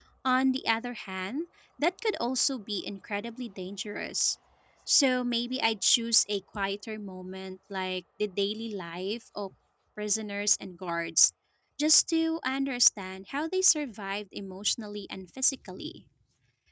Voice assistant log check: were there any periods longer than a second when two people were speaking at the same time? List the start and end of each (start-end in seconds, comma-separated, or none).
none